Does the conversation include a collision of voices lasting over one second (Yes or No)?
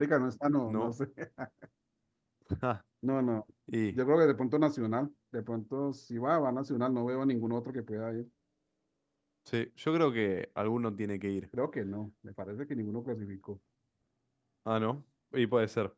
No